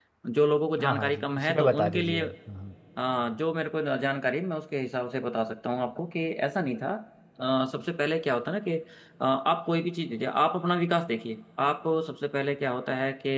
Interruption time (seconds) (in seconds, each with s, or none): 0.8 s